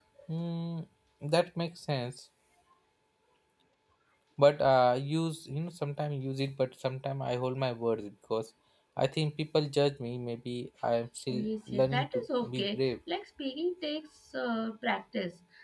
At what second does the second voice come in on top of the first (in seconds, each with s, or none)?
11.3 s